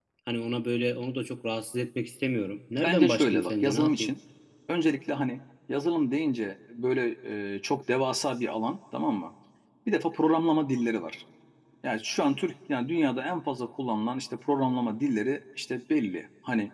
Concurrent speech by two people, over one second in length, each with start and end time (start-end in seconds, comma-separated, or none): 2.8-4.1